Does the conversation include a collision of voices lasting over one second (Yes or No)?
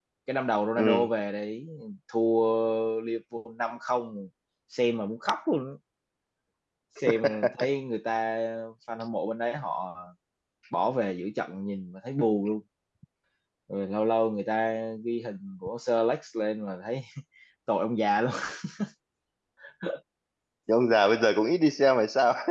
No